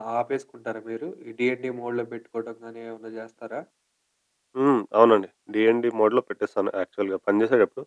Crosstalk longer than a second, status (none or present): none